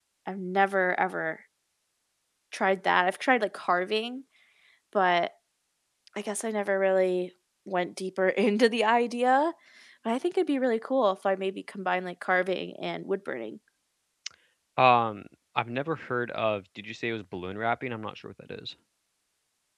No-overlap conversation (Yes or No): Yes